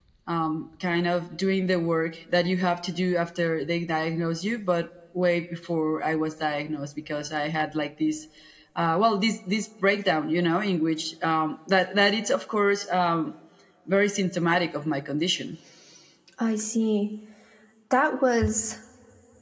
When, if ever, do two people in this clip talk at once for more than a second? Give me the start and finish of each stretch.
none

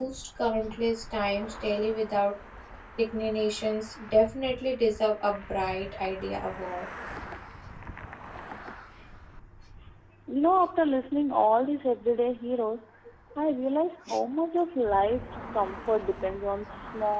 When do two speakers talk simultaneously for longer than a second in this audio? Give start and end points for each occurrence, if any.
none

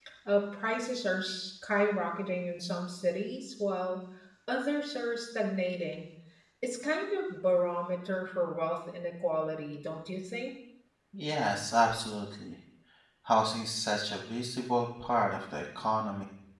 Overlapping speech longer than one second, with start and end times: none

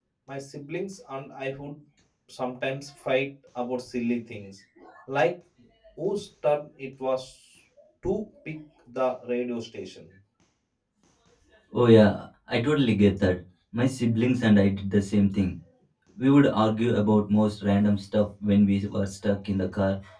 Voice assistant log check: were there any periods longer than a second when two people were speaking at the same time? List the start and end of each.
none

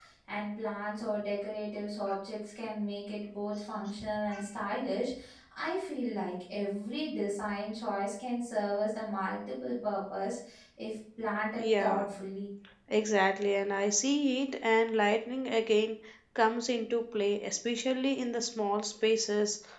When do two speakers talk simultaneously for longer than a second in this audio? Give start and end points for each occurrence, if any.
none

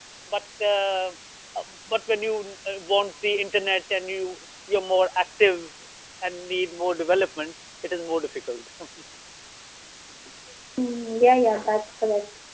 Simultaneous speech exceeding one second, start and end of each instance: none

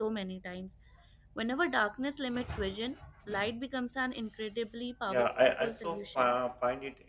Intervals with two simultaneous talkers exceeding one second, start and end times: 5.1-6.3

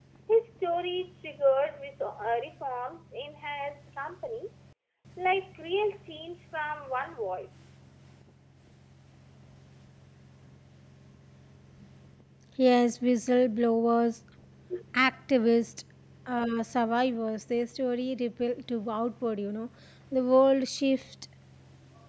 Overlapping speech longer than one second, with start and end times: none

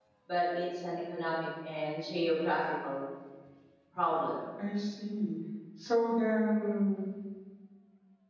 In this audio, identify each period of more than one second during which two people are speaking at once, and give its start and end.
none

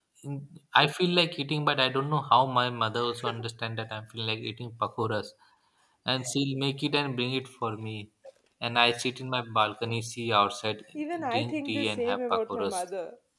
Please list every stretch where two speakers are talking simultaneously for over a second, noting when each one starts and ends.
11.3-12.8

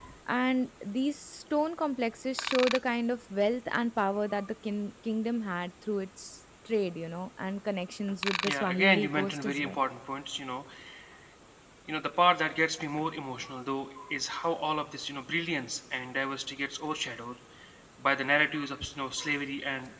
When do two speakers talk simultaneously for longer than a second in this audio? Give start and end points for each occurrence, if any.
8.4-9.8

